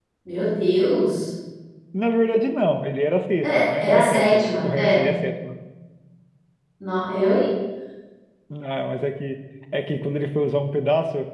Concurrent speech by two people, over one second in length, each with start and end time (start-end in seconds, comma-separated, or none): 3.4-5.1